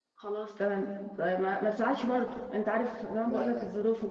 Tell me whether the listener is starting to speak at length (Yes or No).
No